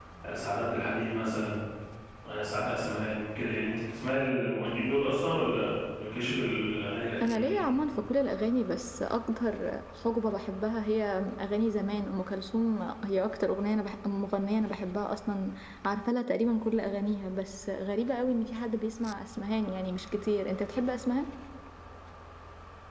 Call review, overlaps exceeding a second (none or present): none